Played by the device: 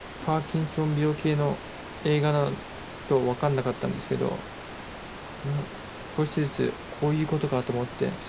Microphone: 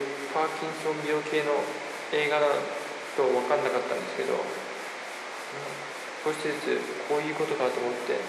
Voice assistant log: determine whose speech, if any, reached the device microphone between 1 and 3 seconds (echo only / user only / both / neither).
echo only